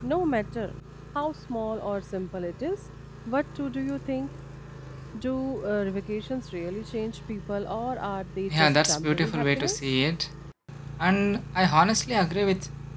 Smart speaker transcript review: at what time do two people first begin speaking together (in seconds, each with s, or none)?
8.5 s